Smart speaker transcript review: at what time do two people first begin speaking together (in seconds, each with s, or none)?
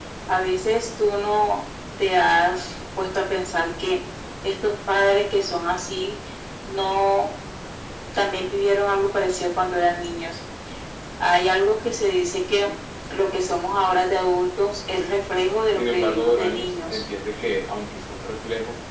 15.8 s